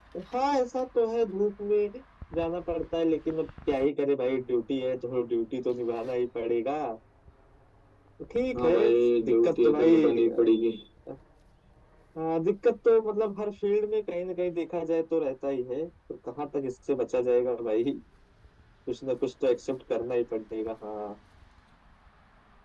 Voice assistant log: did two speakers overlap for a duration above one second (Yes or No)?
Yes